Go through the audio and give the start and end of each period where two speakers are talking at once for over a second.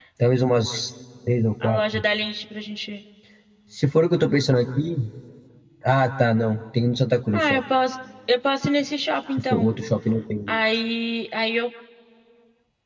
none

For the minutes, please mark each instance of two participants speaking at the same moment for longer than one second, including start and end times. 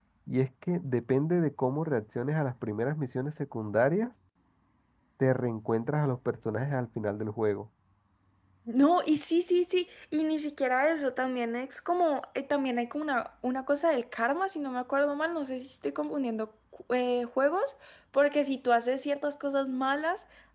none

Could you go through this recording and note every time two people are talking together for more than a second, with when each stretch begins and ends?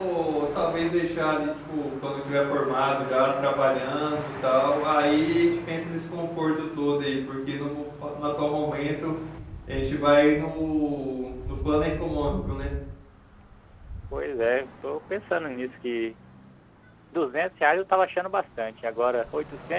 none

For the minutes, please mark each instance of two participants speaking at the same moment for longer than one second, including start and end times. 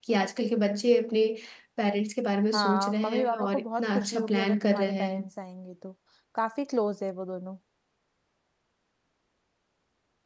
2.5-5.2

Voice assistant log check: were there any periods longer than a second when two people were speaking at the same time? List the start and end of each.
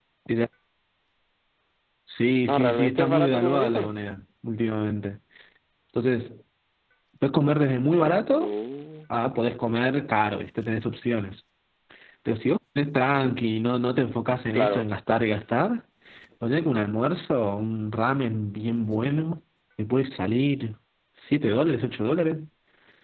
2.5-3.9

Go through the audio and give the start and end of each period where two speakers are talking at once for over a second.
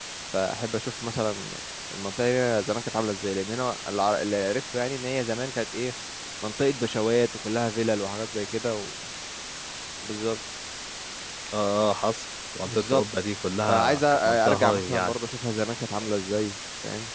13.7-15.2

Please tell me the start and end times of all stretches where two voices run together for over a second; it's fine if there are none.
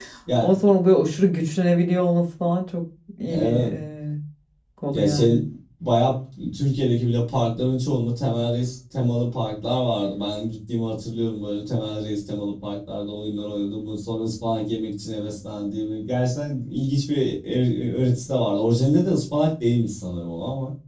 none

